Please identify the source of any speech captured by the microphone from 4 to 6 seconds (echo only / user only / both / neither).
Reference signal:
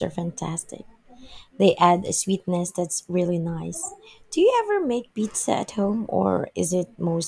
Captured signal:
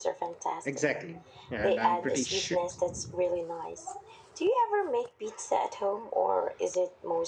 echo only